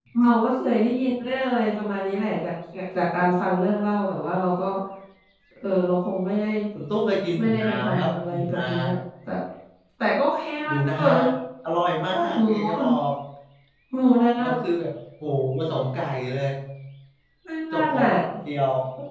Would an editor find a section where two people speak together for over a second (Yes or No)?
Yes